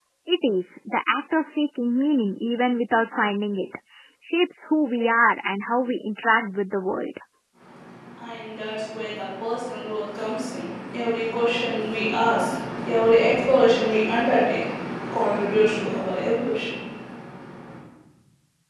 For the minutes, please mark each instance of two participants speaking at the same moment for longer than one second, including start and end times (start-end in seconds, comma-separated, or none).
none